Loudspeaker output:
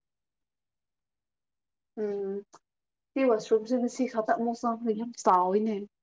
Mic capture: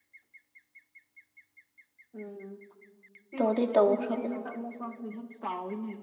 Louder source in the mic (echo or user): user